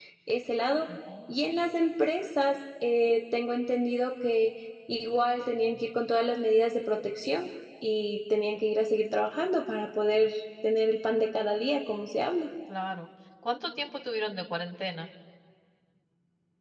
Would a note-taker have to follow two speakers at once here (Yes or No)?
No